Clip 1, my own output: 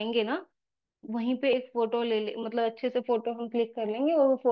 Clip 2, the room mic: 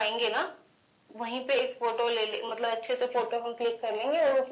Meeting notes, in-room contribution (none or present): none